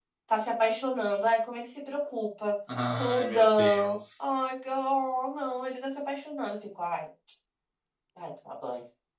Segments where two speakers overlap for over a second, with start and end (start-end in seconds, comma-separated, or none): 2.9-4.2